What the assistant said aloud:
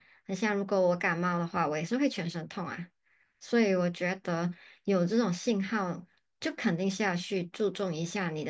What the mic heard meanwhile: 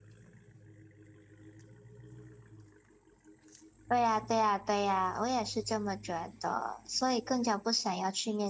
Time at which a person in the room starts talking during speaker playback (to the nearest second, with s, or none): 4 s